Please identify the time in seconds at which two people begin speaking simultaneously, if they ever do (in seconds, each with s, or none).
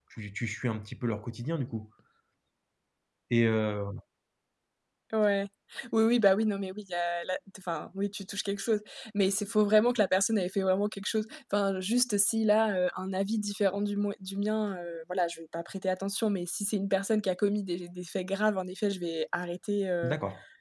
none